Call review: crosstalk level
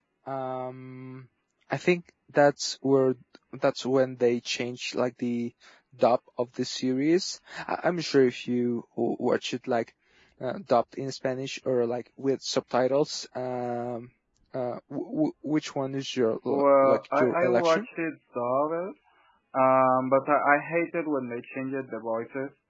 present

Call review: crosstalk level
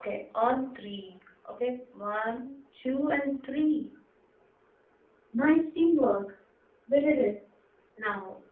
none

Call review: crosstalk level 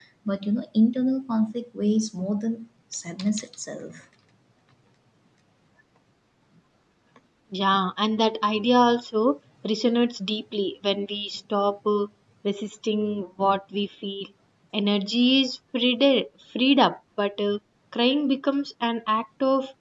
none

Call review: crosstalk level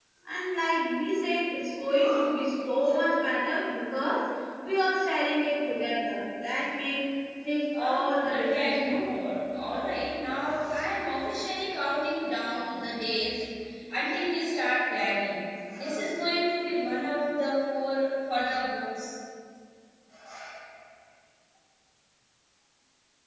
present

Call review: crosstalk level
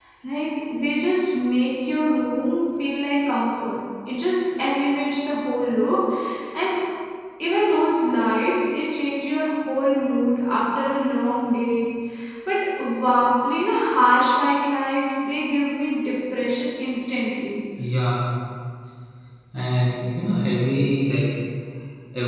none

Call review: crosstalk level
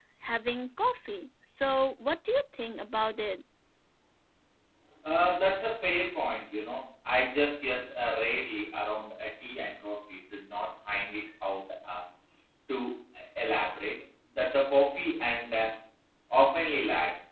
none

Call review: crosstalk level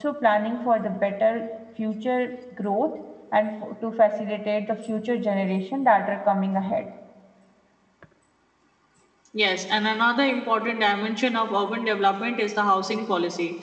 none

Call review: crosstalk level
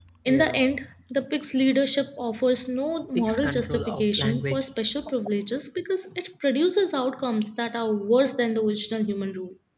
present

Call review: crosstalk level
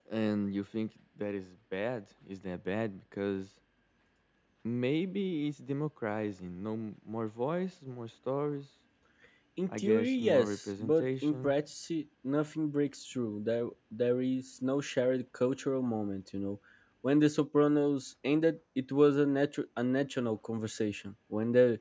present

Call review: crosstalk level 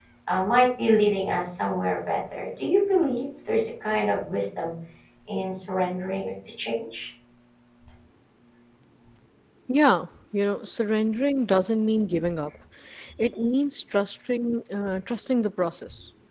none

